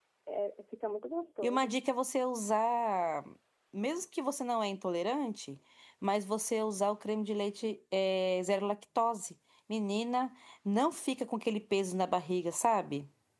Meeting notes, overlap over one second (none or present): none